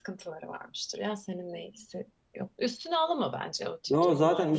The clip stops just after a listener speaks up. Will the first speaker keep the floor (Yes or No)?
No